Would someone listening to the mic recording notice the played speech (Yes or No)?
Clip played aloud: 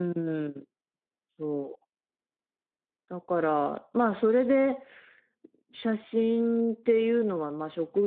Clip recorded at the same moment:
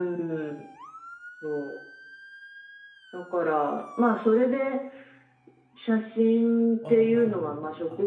Yes